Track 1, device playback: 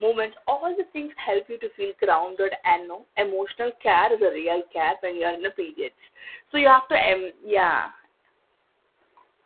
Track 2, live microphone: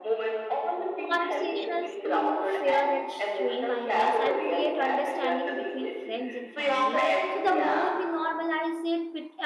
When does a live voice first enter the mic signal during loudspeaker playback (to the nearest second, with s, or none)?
1 s